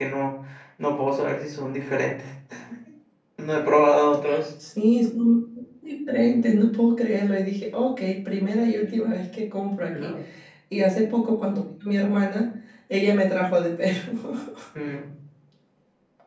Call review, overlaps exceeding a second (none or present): none